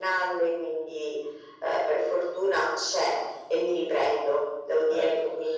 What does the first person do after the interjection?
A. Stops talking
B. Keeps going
B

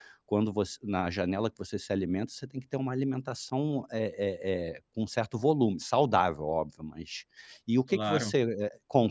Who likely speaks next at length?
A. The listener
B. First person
B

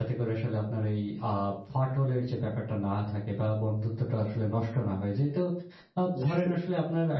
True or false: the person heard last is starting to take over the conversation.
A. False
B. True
A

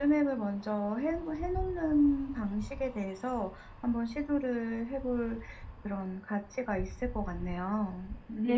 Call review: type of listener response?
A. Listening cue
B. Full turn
B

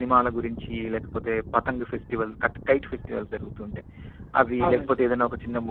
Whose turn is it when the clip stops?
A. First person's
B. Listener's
A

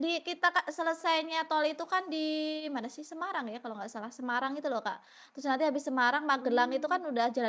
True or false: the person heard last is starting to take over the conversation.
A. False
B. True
A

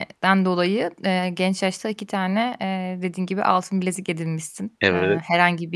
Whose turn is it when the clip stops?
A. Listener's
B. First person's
B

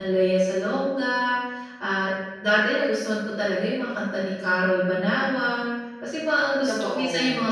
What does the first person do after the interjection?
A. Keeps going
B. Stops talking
A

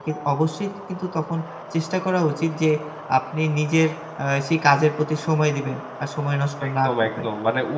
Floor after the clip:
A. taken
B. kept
A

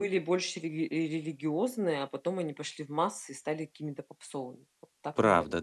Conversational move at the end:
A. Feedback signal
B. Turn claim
B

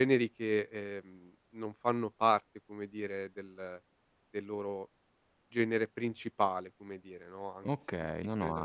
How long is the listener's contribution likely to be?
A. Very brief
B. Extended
B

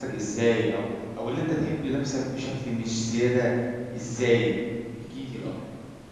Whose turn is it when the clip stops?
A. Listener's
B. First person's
A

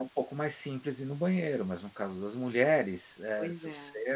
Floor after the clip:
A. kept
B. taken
A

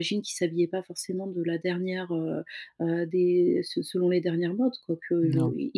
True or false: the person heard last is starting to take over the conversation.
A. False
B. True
A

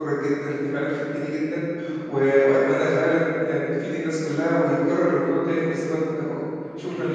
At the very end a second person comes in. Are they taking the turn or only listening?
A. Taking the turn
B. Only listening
A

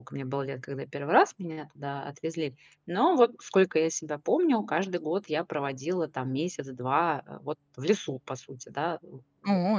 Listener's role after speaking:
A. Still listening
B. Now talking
B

